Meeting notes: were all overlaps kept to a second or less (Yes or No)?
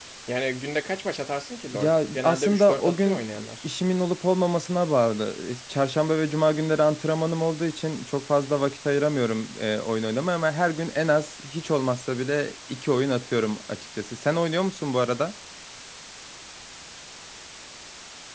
No